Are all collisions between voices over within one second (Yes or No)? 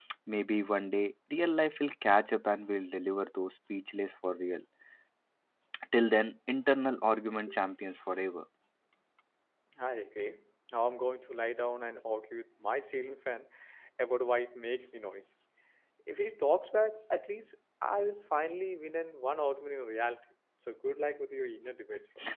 Yes